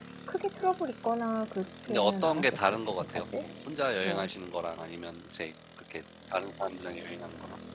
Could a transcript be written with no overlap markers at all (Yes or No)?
No